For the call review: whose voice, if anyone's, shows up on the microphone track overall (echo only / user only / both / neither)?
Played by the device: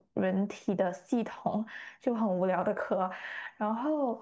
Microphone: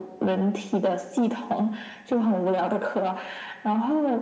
echo only